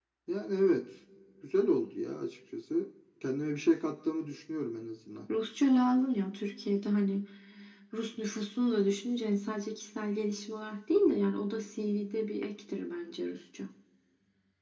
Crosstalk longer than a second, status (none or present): none